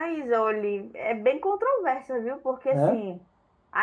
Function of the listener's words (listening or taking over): listening